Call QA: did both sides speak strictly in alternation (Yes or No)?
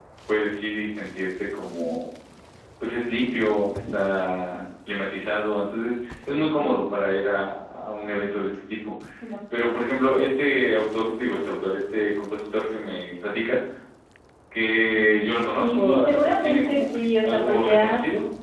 No